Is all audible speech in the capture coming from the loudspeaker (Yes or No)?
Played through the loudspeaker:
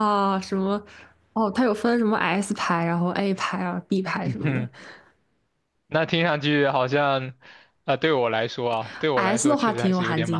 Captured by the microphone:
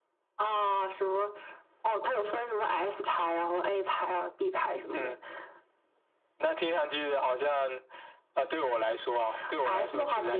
Yes